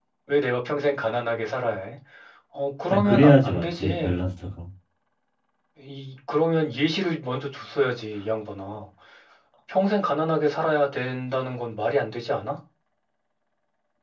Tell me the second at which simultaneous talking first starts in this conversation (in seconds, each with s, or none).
2.9 s